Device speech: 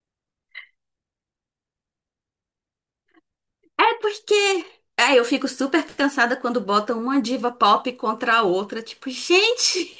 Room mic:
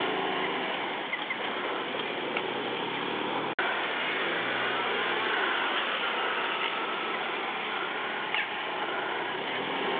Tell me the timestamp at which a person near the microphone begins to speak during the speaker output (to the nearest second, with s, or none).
none